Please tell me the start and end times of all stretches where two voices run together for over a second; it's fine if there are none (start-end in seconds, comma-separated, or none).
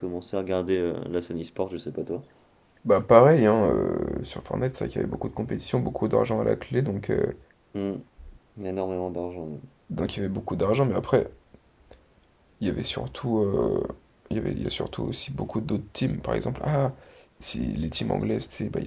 none